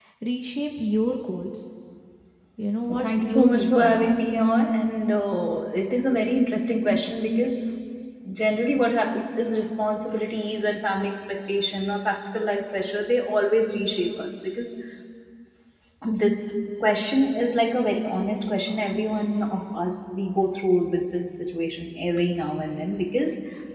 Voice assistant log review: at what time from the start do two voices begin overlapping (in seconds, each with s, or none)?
3.0 s